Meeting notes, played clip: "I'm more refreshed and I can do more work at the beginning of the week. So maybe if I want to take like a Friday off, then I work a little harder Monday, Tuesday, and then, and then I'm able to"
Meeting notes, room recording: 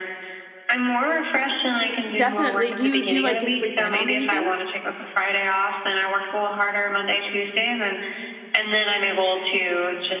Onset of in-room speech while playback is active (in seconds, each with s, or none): 2.1 s